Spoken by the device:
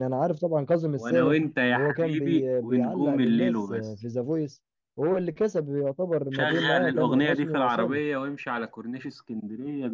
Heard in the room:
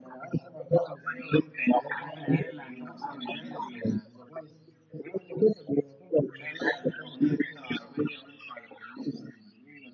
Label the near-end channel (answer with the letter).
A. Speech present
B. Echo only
A